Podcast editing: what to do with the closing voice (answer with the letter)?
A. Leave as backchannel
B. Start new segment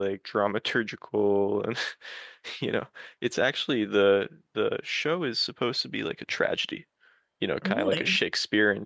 A